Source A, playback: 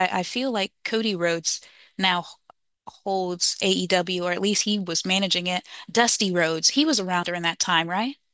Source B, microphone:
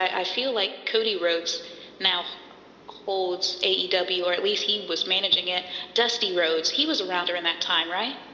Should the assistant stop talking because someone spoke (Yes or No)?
No